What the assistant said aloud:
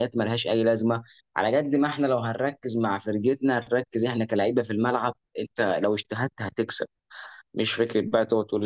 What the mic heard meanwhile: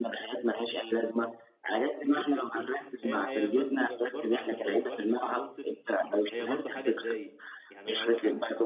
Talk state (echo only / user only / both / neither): both